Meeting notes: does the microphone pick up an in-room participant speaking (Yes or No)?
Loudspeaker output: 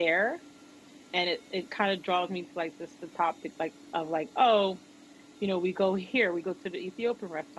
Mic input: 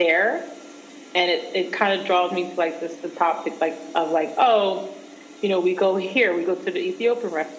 No